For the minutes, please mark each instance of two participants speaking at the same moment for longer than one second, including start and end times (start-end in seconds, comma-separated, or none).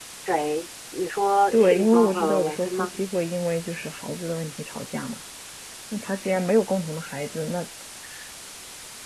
1.5-2.9